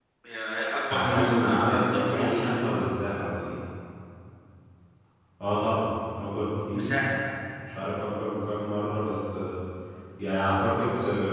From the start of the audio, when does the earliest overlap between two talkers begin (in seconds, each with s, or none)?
0.8 s